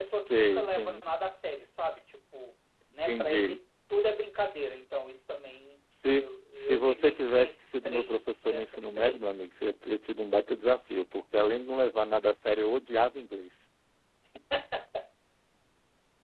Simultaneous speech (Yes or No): Yes